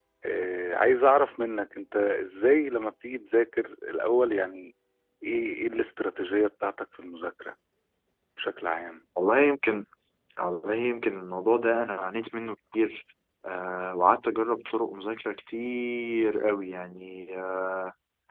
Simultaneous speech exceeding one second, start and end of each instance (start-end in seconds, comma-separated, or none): none